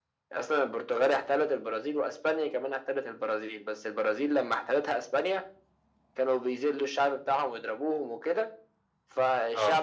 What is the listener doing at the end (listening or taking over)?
listening